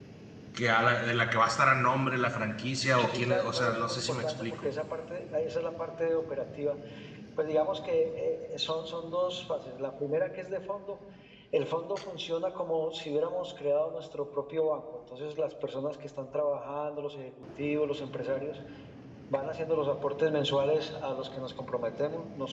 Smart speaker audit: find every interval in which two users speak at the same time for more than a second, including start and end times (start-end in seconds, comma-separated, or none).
3.0-4.7